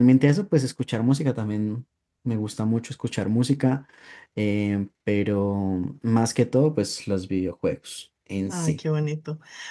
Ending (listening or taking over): taking over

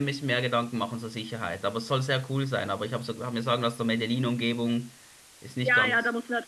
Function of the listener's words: taking over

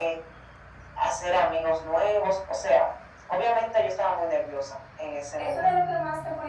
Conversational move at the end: taking over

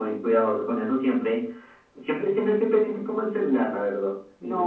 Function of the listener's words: taking over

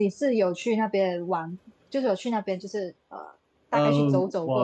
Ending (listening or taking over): taking over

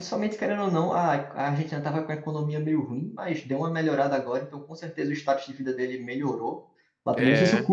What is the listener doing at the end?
listening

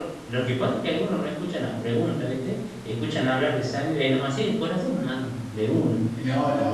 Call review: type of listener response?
taking over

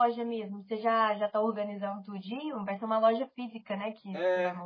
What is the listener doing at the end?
taking over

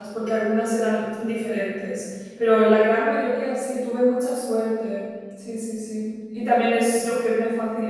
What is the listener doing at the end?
listening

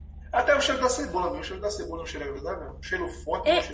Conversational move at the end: taking over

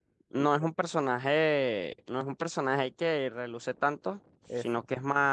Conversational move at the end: listening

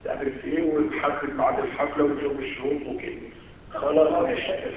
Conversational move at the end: taking over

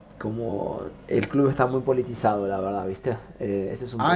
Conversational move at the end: taking over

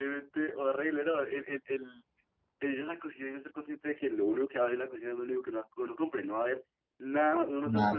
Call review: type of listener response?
taking over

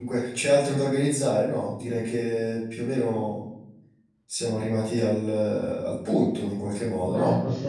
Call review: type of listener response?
taking over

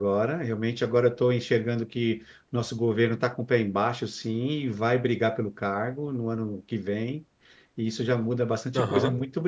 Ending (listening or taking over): listening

